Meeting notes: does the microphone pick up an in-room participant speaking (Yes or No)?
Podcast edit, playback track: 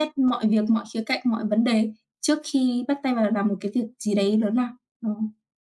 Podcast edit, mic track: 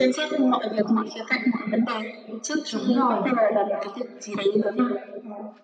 Yes